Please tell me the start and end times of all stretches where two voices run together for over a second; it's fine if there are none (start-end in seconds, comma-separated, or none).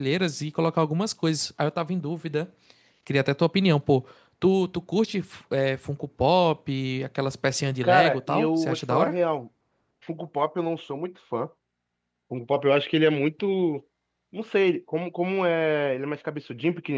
7.8-9.1